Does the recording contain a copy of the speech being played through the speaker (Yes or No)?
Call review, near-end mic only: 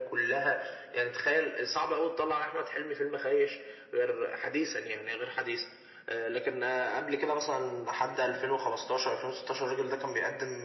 Yes